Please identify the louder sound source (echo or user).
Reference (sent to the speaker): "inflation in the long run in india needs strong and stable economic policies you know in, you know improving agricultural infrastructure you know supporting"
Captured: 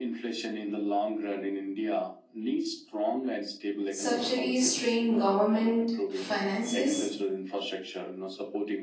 user